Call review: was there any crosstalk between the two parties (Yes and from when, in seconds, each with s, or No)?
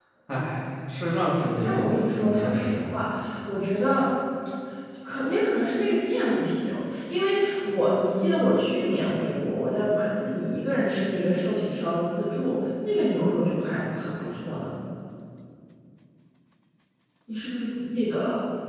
Yes, from 1.6 s